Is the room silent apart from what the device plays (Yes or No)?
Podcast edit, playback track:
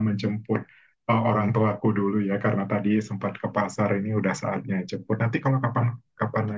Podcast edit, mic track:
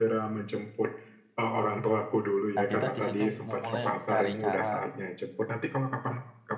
No